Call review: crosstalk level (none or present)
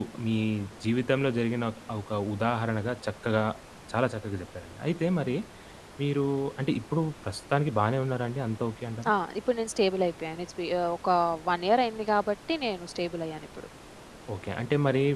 none